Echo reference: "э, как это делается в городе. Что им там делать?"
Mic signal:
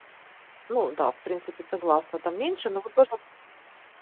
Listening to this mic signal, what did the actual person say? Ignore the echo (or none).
Ну да, в принципе, согласна, там меньше, но вот тоже